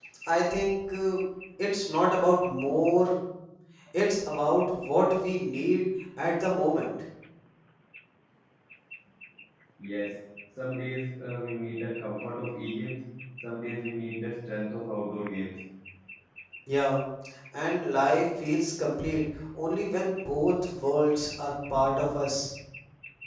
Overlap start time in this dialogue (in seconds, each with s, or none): none